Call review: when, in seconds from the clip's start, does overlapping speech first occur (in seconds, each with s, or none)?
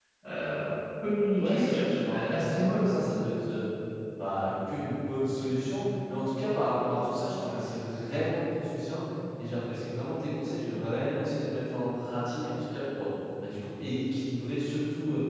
1.4 s